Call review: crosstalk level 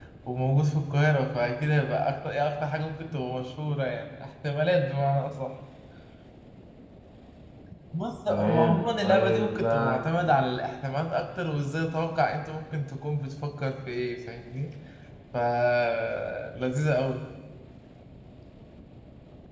present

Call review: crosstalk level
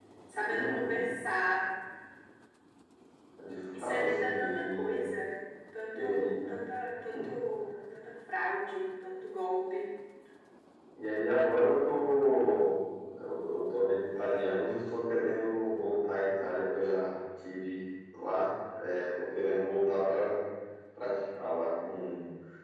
present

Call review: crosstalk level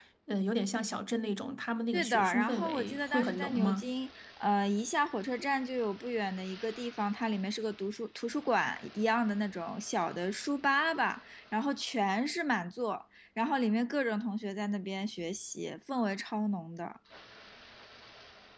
present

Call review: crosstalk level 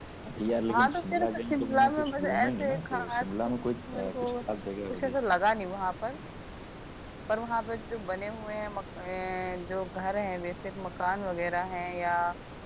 present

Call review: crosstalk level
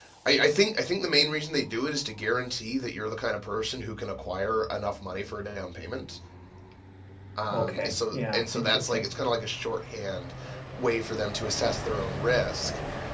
present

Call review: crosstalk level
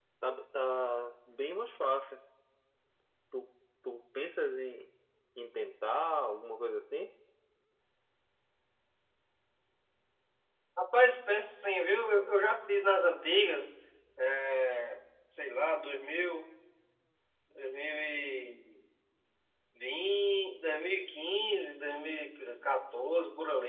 none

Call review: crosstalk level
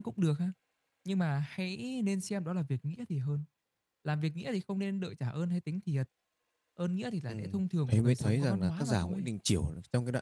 present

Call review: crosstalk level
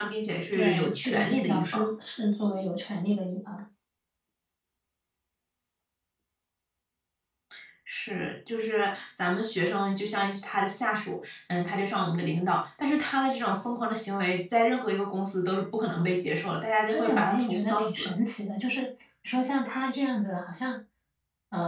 present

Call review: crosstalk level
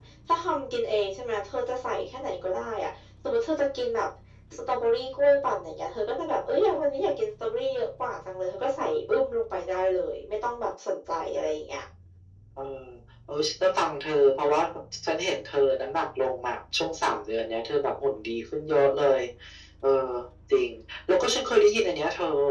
none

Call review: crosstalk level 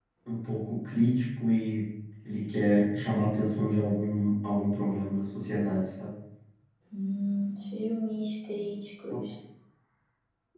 none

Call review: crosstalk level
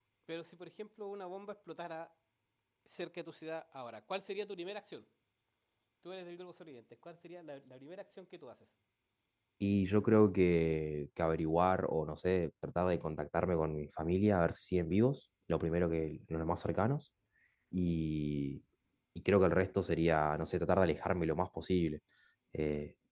none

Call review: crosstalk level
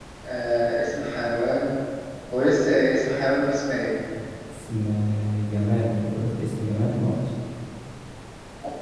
none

